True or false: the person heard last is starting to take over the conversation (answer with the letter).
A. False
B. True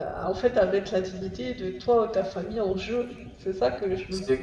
B